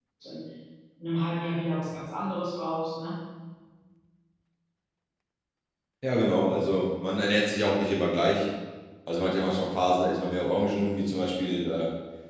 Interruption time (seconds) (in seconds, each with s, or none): none